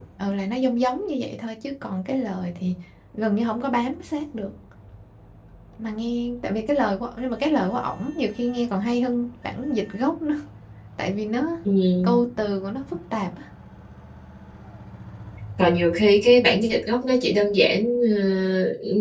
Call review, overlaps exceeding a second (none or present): none